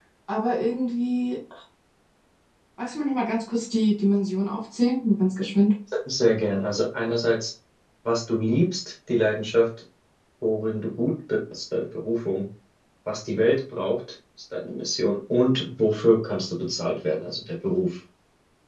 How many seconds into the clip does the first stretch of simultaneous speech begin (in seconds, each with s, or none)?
none